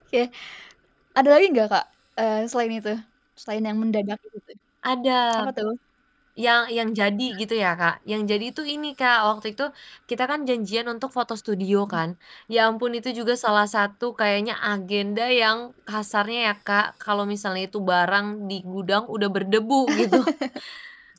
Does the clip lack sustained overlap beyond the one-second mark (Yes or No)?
Yes